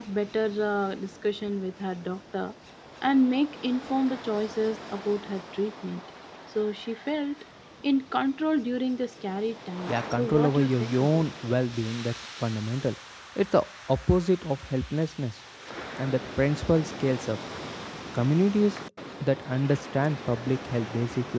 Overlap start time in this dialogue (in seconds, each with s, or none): 9.9 s